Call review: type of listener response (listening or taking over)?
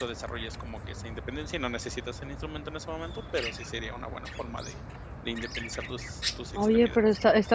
taking over